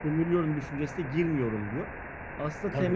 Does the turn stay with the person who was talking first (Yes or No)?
No